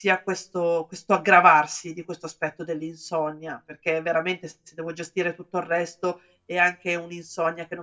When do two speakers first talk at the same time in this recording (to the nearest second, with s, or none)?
none